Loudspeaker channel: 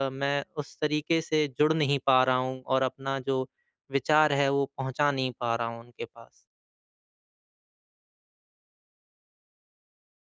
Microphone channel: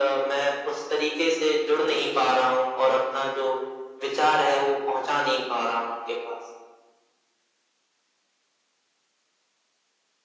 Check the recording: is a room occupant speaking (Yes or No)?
No